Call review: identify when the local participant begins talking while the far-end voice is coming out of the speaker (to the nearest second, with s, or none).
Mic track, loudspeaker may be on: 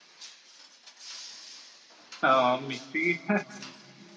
2 s